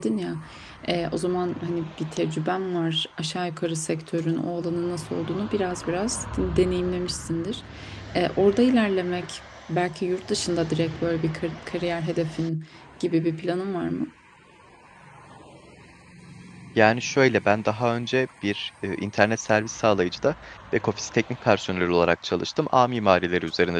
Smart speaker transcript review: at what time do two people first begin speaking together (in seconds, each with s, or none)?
none